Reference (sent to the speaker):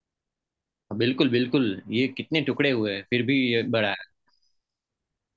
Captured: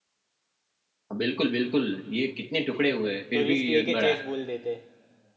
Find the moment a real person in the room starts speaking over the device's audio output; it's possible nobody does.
3.3 s

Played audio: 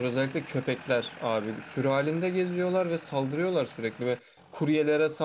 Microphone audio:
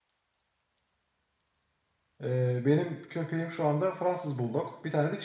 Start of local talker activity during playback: 2.2 s

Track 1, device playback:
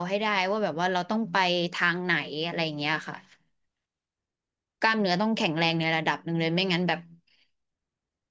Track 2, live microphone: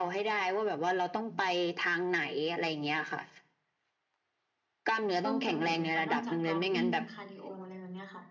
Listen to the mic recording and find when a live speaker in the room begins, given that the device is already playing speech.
5.2 s

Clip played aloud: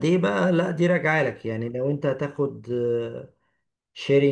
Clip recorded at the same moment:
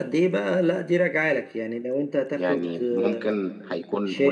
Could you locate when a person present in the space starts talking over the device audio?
2.3 s

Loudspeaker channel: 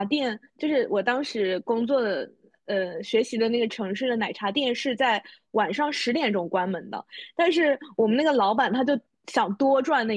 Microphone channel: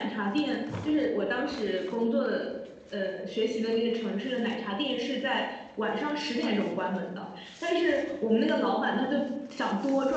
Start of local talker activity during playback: none

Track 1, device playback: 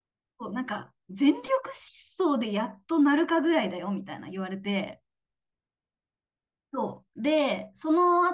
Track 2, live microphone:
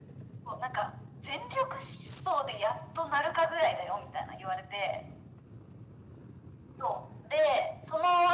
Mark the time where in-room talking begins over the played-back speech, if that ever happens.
none

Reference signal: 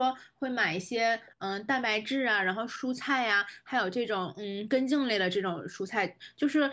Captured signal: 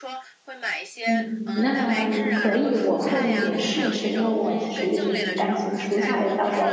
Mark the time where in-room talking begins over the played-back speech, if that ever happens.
1.0 s

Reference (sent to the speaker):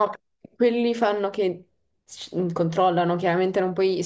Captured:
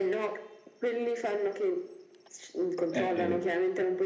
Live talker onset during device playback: 2.9 s

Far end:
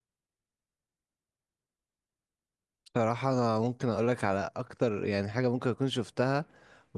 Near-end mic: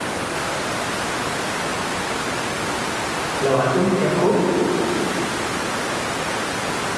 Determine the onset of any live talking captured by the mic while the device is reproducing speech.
3.4 s

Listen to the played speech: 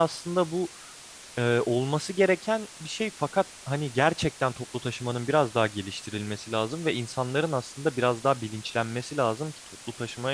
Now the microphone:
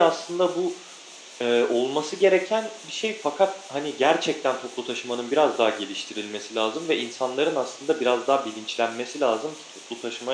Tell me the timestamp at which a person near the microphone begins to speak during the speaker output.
none

